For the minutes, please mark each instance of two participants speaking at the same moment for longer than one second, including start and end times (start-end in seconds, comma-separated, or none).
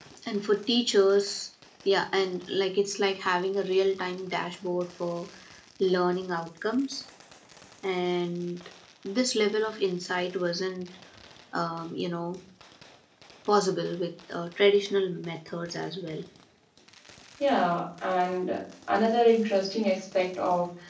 none